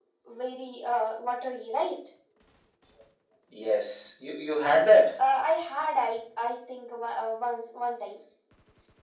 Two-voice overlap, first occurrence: none

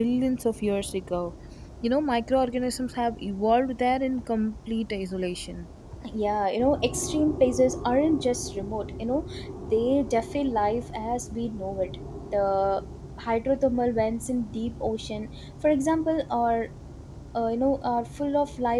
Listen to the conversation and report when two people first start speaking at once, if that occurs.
none

